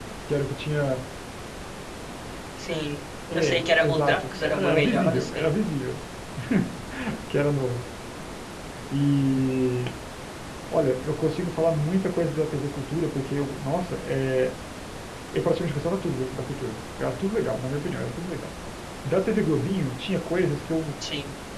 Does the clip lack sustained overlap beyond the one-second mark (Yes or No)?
No